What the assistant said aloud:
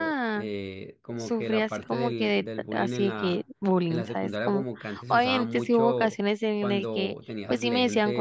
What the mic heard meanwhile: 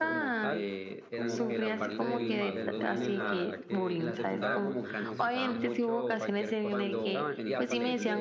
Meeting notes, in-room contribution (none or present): present